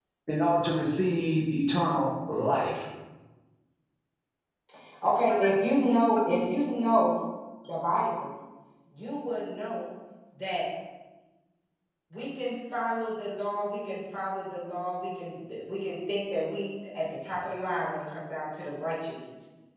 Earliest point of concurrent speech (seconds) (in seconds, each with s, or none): none